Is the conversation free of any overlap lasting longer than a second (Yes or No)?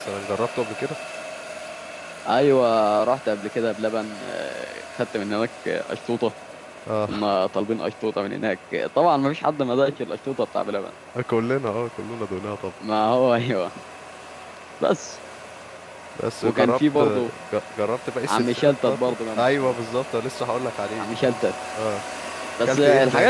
No